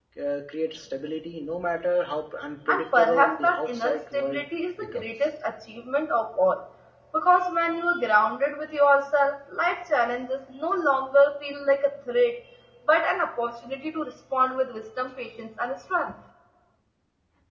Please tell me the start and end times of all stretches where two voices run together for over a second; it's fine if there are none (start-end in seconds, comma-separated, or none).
2.7-4.4